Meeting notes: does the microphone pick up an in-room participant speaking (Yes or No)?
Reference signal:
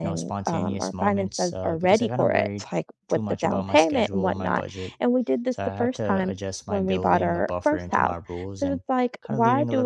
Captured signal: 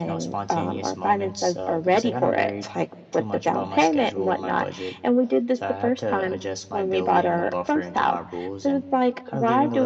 No